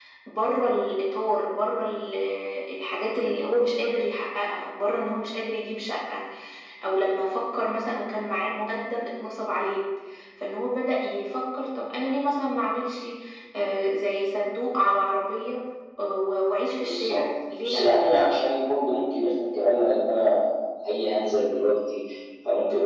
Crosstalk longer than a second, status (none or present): present